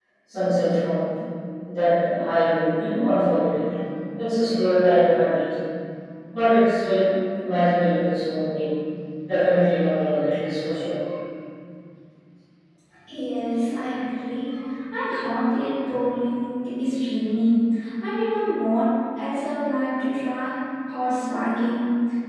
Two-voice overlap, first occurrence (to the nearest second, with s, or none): none